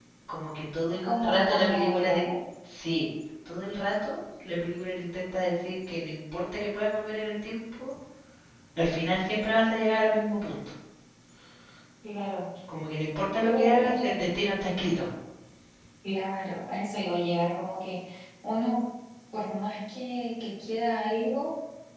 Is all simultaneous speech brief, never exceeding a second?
No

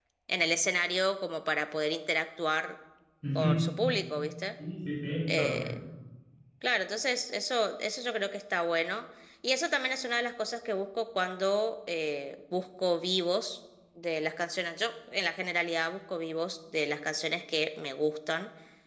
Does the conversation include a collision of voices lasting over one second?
No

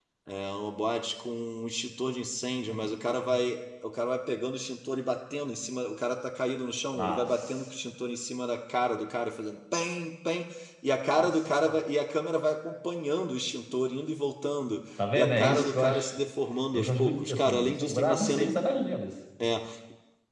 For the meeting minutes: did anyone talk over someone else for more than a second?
Yes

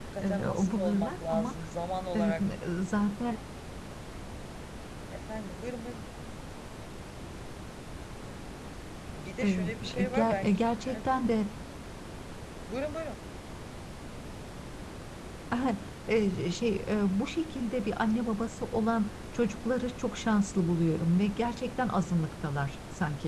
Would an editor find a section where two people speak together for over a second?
Yes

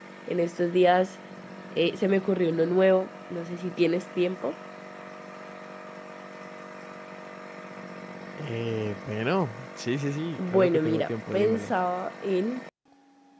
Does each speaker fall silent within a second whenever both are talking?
No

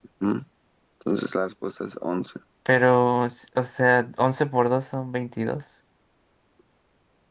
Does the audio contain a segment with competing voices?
No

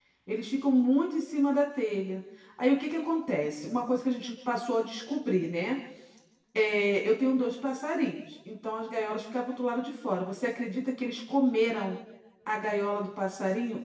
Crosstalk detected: No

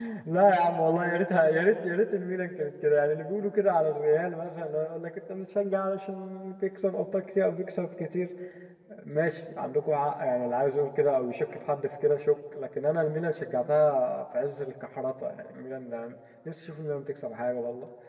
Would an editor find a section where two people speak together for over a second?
No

